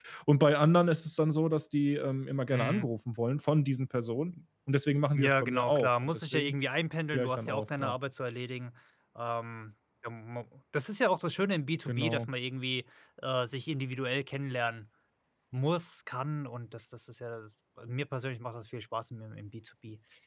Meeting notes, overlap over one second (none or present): present